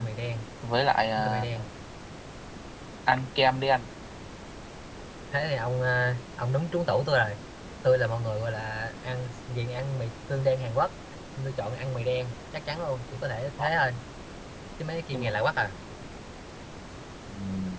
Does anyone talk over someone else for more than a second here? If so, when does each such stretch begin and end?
none

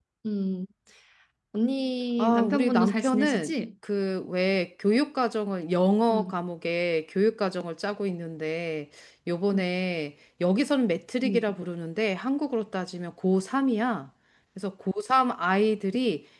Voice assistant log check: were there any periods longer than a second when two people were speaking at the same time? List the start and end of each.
2.2-3.5

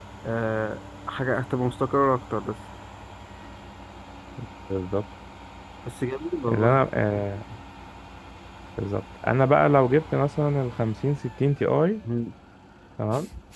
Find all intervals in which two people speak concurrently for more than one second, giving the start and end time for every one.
none

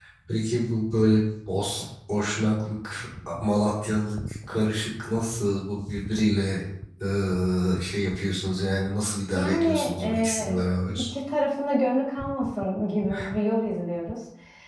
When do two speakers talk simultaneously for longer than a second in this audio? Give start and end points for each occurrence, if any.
9.3-11.1

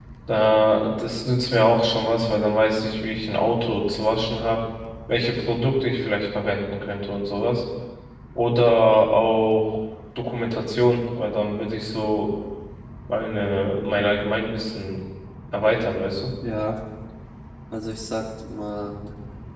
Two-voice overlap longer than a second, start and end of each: none

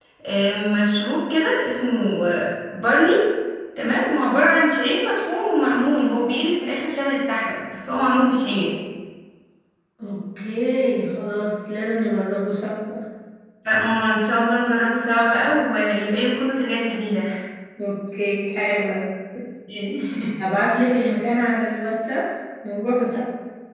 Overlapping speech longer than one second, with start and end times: none

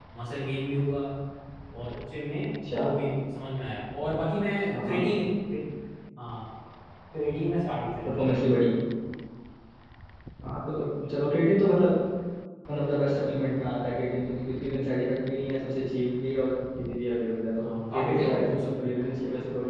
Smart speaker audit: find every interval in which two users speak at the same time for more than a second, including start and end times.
17.6-18.9

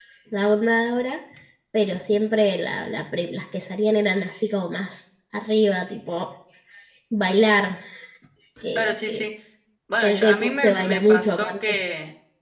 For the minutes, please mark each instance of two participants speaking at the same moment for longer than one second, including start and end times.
10.0-11.8

